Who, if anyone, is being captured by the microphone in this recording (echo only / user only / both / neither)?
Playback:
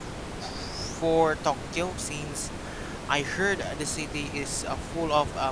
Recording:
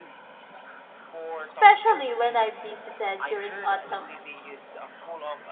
both